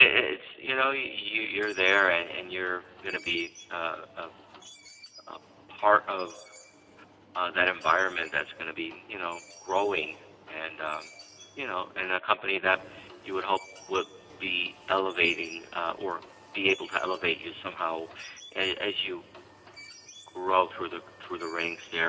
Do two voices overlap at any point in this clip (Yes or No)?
No